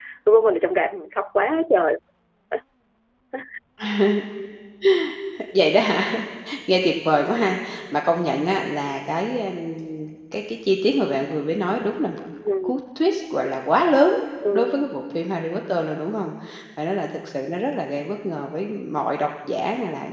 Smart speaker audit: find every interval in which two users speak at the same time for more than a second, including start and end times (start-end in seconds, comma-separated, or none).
none